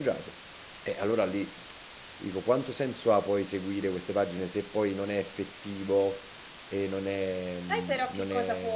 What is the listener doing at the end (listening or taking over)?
taking over